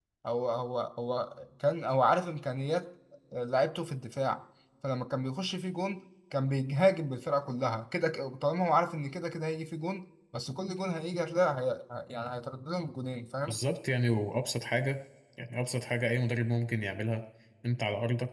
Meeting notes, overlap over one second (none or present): none